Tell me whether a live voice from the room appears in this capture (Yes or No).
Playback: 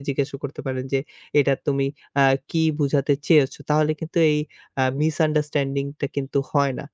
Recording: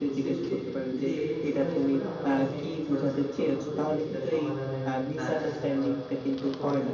Yes